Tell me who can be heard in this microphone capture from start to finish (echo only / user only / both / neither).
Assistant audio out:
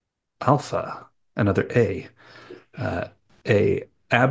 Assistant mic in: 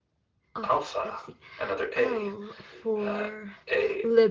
both